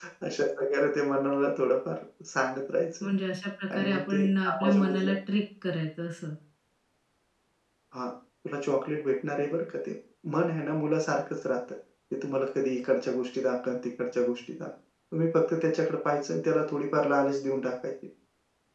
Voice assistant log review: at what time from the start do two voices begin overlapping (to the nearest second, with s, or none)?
4 s